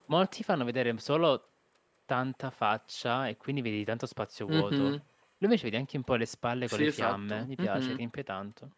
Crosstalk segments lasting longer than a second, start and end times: 6.7-8.0

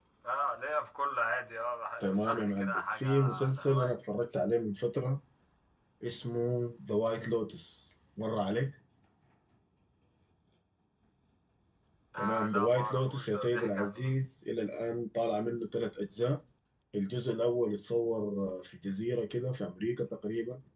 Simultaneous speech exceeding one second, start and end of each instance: 2.0-3.9, 12.2-14.1

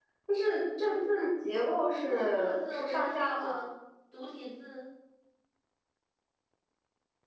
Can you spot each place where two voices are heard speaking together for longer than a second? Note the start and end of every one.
2.1-3.7

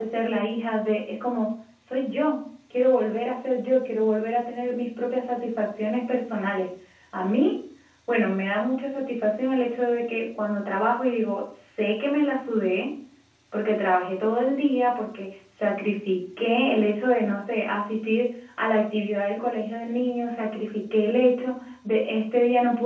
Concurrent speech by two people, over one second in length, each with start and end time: none

